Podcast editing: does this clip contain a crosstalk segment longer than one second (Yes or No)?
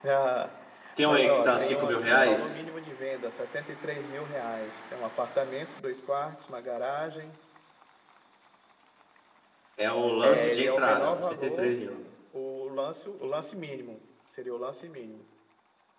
Yes